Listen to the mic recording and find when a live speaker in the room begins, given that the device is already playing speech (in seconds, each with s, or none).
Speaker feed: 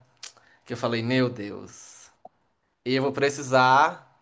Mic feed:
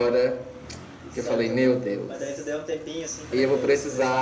1.0 s